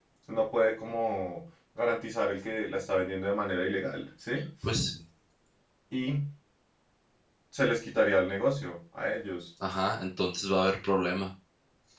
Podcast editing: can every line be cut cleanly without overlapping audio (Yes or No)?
Yes